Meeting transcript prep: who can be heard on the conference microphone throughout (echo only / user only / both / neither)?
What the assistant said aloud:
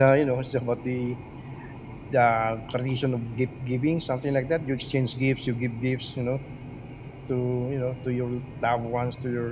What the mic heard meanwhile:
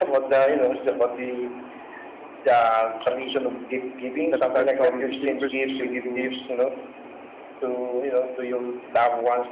both